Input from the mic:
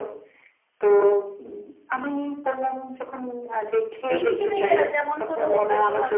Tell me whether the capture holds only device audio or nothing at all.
No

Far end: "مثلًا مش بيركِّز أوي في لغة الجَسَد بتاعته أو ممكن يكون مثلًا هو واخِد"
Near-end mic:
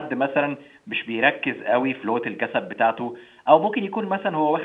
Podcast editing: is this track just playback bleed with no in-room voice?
Yes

